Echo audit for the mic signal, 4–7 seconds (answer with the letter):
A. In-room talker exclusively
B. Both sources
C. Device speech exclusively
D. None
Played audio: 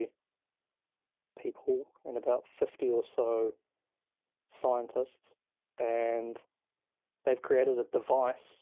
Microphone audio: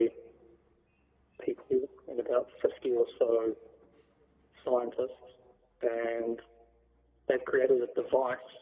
C